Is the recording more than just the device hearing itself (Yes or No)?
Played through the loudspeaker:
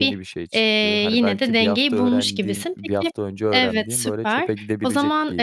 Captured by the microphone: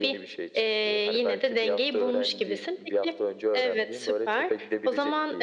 No